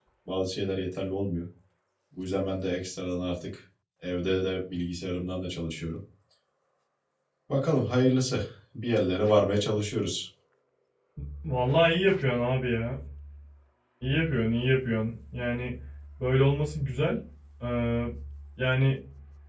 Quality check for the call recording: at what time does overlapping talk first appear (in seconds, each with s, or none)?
none